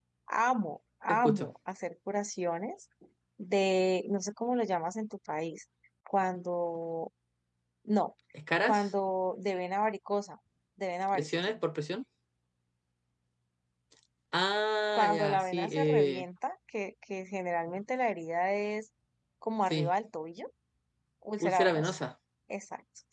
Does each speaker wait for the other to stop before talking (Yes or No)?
No